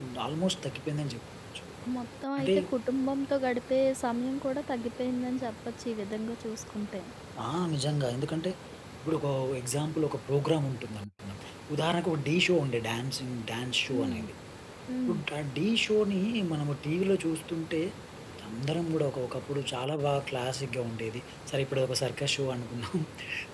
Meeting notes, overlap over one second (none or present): none